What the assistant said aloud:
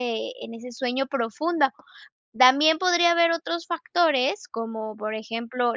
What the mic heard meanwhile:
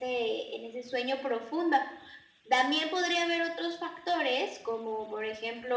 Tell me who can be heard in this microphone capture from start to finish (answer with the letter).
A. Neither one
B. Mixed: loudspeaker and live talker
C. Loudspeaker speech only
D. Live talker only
C